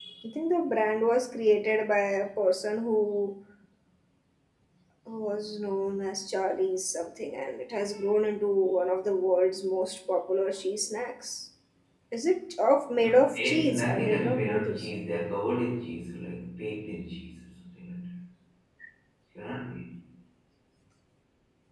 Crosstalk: present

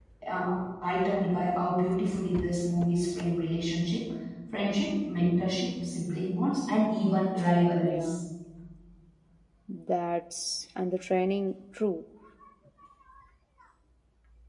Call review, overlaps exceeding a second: none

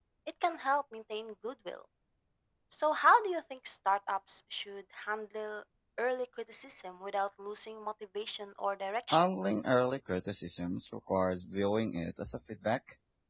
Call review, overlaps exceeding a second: none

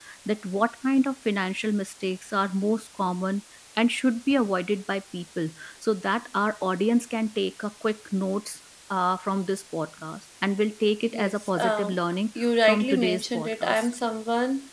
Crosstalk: present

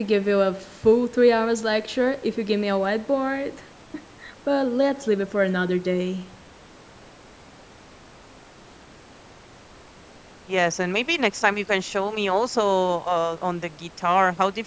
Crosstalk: none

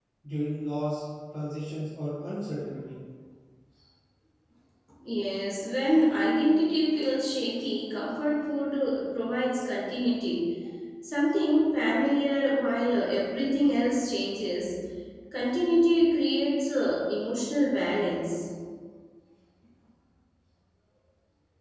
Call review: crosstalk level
none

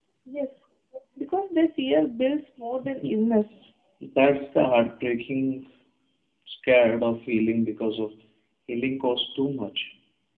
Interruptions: none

